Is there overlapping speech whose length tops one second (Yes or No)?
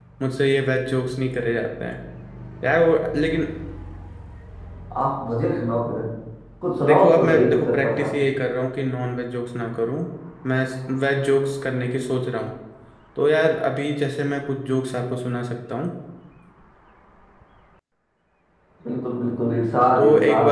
Yes